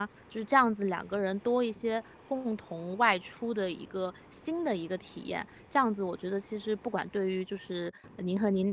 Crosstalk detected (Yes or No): No